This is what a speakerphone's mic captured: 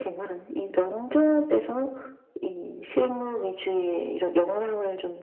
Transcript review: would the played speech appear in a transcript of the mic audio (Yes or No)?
Yes